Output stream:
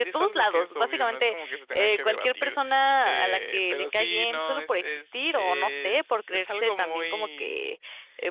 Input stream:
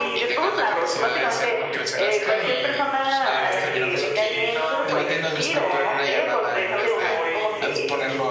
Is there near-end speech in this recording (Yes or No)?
Yes